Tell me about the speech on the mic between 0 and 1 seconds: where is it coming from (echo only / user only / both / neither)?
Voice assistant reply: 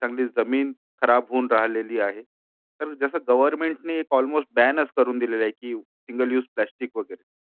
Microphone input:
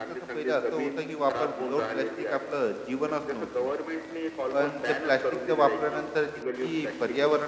both